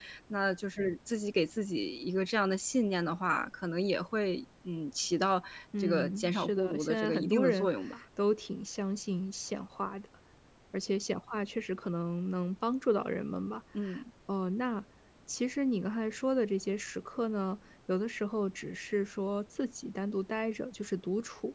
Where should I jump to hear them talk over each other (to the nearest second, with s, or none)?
6 s